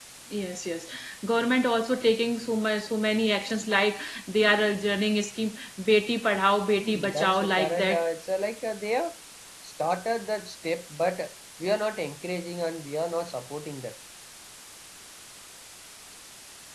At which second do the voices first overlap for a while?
6.7 s

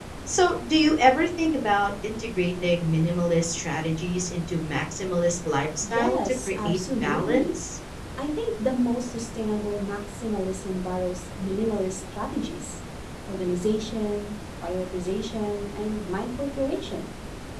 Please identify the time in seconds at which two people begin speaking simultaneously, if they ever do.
5.8 s

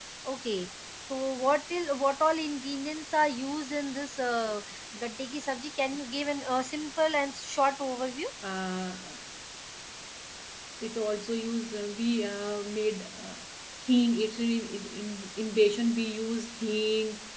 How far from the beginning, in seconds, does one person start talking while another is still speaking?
none

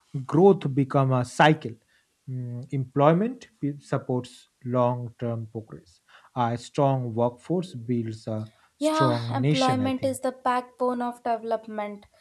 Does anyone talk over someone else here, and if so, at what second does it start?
8.8 s

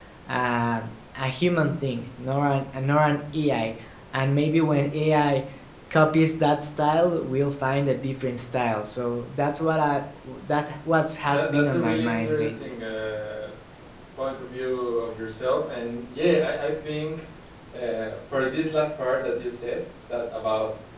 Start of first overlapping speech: 11.3 s

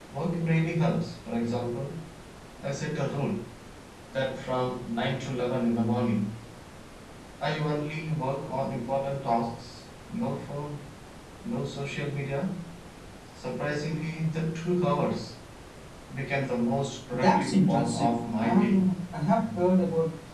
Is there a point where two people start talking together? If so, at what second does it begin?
17.1 s

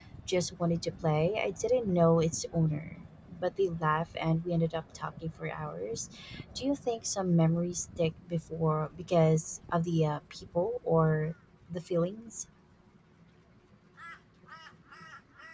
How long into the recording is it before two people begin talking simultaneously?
none

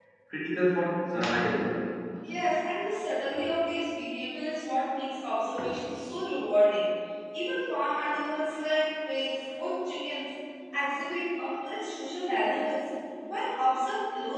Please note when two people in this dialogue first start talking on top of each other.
none

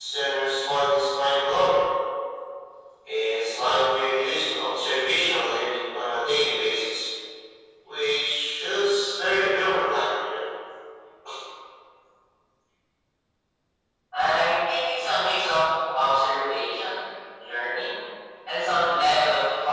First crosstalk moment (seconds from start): none

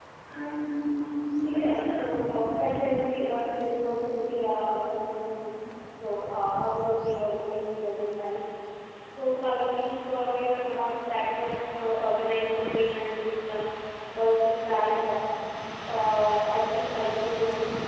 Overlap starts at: 1.4 s

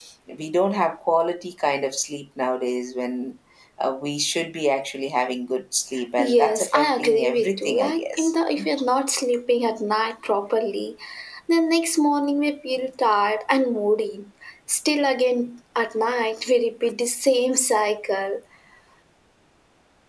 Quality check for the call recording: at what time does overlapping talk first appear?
6.2 s

